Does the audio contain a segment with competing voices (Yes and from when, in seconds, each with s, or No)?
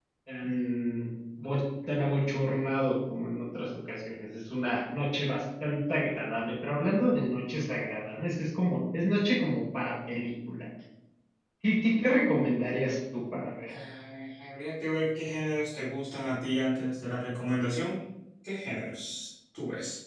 No